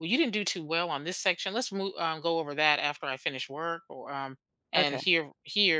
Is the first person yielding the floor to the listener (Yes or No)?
No